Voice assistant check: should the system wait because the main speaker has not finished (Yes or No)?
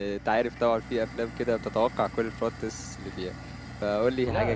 No